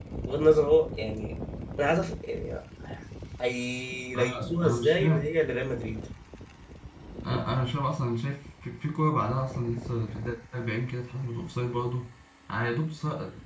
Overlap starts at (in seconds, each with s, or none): 4.2 s